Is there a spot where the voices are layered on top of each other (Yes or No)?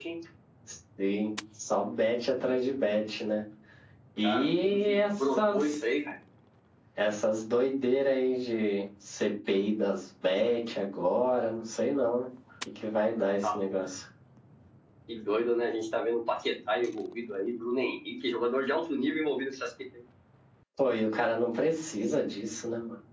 Yes